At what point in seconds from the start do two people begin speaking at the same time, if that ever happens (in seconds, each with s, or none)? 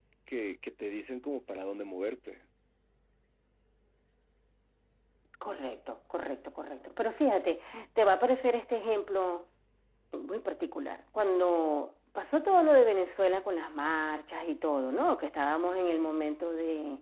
none